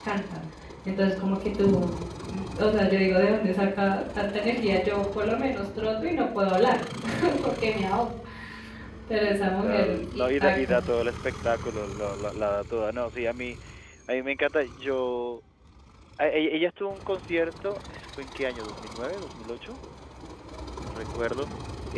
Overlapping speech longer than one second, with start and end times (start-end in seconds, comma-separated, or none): 9.2-10.8